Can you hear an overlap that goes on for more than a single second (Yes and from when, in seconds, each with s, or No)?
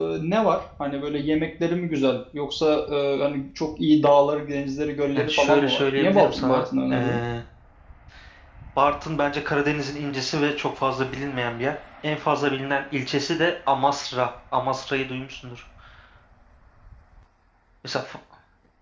Yes, from 5.2 s